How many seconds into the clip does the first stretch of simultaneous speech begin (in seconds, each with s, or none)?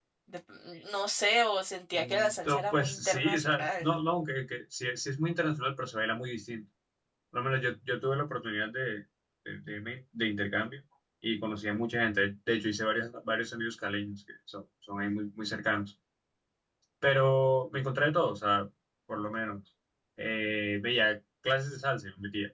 1.9 s